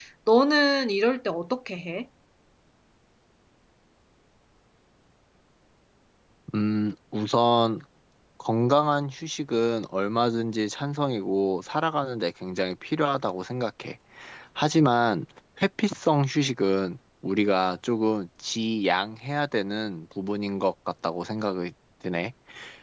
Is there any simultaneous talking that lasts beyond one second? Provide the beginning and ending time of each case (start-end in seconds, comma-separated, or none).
none